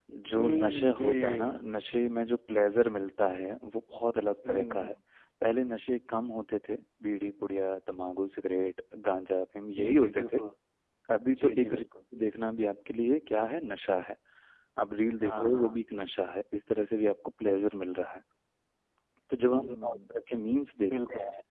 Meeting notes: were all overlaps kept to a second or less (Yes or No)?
No